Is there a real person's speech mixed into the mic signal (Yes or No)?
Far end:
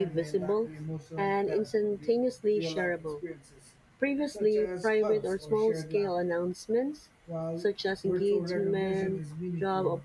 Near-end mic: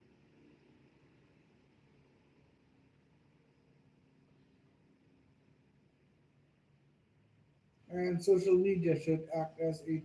Yes